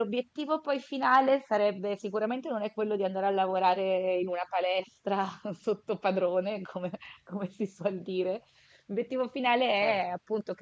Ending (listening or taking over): listening